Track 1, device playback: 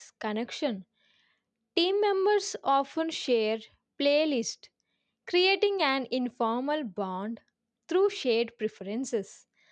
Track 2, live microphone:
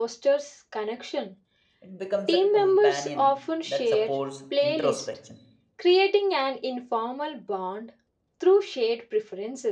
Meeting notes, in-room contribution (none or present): present